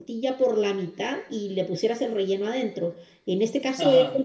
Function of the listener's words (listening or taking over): listening